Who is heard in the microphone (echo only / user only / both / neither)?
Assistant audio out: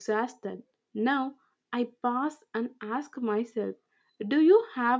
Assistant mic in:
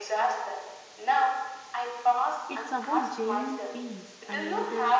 both